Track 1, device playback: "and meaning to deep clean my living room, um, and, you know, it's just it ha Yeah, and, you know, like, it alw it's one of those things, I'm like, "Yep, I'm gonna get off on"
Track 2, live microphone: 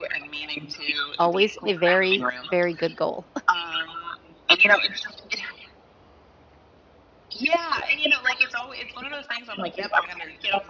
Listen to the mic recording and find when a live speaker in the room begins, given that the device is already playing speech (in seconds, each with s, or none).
1.2 s